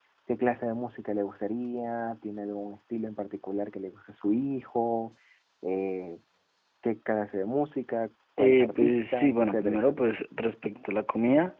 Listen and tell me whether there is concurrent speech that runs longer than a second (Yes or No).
Yes